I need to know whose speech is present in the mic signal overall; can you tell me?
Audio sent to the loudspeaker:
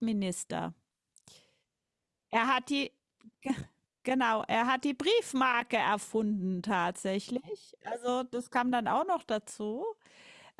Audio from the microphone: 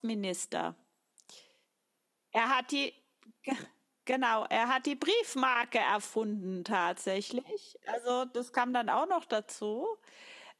echo only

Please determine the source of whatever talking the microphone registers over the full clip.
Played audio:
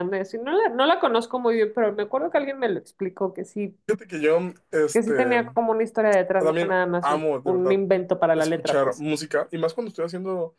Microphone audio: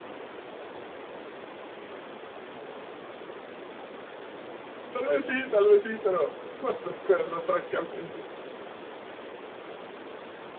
user only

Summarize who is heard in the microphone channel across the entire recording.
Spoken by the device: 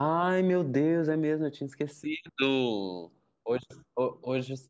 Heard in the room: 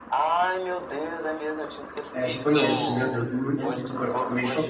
both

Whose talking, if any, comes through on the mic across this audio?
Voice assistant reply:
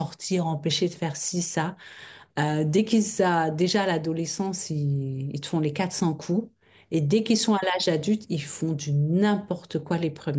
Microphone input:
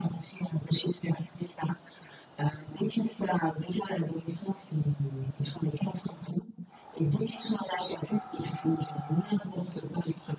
echo only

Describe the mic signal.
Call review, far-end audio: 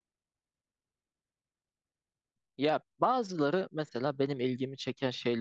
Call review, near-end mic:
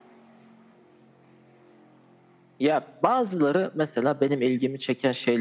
echo only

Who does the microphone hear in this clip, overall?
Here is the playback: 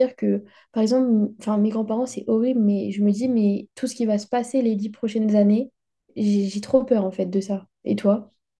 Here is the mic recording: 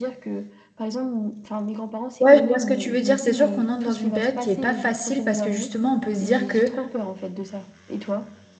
both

